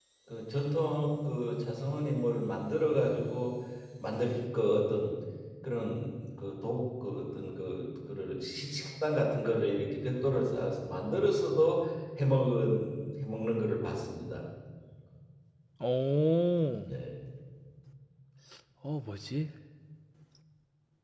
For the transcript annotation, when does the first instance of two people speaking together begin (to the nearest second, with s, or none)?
none